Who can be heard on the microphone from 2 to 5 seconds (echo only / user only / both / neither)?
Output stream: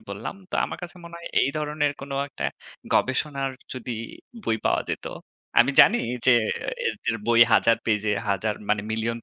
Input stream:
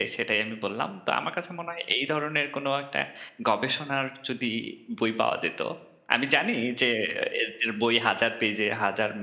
echo only